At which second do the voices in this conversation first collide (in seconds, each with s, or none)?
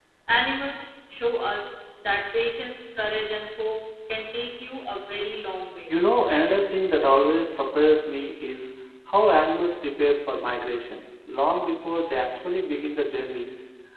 none